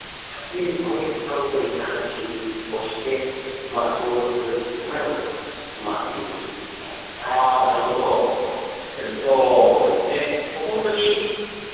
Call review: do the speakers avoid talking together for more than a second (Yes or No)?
Yes